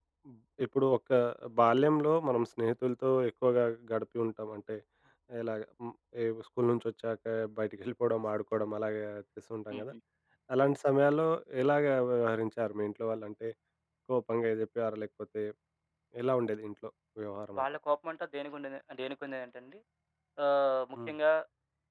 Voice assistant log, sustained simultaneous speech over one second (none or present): none